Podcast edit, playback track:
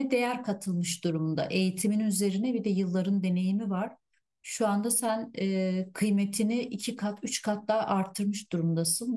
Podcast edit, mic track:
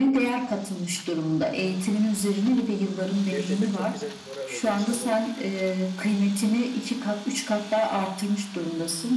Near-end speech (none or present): present